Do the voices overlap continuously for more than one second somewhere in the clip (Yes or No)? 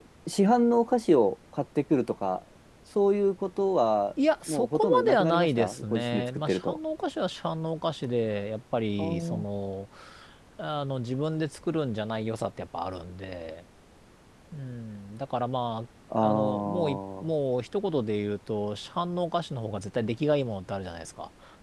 Yes